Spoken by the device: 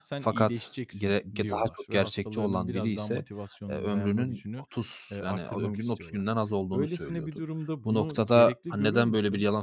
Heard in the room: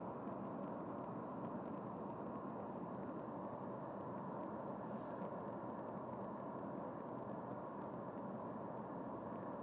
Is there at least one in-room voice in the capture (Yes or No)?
No